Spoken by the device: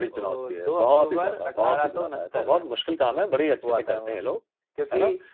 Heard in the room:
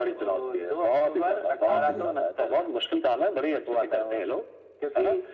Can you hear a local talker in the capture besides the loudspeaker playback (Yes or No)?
Yes